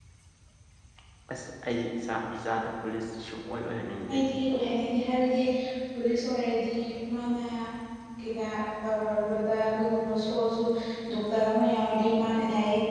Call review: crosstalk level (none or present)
none